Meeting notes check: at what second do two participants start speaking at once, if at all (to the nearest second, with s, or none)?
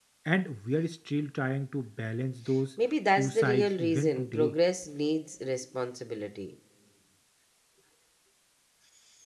3 s